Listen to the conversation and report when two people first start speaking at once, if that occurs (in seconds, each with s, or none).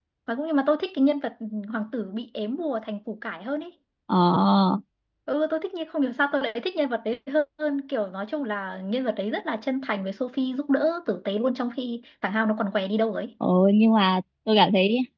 none